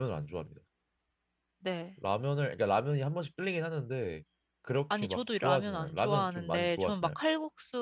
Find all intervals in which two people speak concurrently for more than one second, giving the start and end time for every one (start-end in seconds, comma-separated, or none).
5.0-7.1